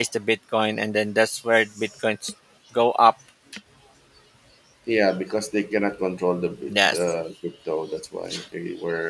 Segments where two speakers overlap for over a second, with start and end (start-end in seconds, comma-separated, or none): none